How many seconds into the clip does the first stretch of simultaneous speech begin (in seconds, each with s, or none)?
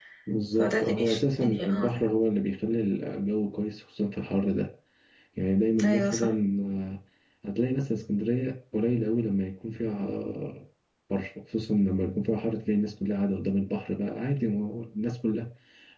0.6 s